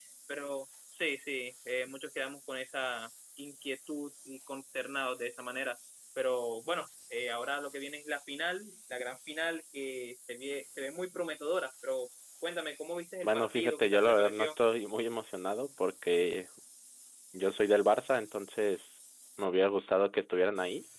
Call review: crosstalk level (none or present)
present